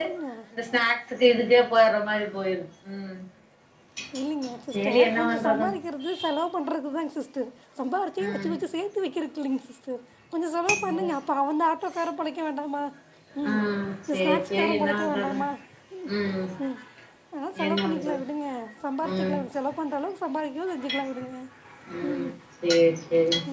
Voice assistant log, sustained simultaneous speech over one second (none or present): present